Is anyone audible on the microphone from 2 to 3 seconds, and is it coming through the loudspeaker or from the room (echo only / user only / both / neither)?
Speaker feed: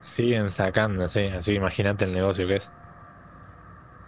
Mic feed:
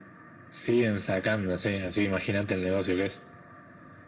echo only